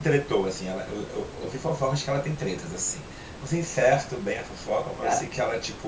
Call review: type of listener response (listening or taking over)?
listening